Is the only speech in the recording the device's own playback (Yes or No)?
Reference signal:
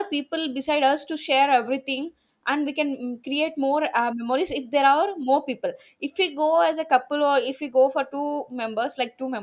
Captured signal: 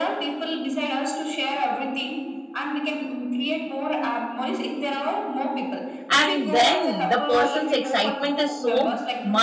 No